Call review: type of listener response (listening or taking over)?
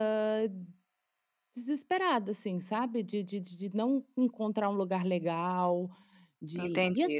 taking over